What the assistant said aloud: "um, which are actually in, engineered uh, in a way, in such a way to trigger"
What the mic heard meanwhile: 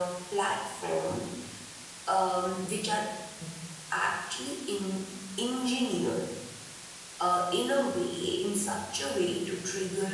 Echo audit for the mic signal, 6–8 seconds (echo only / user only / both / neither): echo only